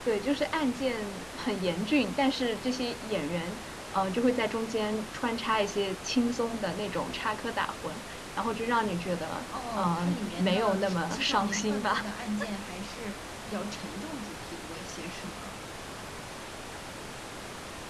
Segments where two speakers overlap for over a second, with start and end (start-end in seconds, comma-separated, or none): 9.8-12.1